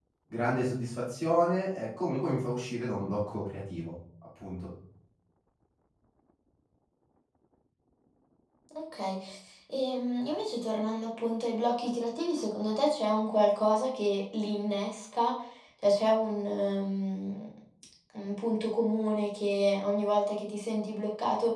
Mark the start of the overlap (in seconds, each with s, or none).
none